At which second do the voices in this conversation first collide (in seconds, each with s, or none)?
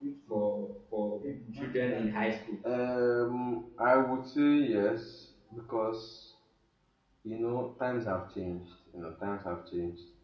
none